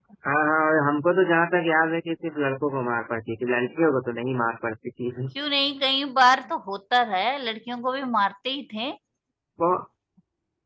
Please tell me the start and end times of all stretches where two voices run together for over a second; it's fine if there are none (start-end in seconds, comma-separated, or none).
none